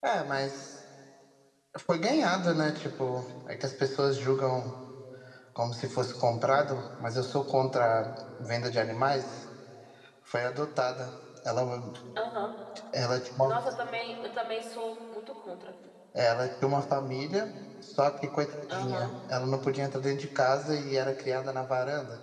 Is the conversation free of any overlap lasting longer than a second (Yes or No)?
Yes